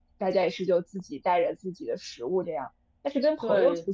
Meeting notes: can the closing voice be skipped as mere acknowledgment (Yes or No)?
Yes